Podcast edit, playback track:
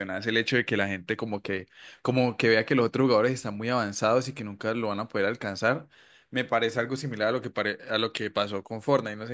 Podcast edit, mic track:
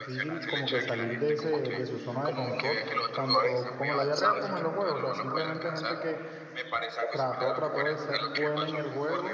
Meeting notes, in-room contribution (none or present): present